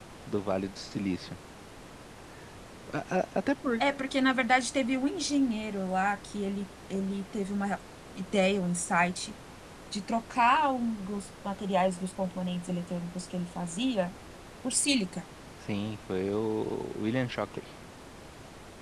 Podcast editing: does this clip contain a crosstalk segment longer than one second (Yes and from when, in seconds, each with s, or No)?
No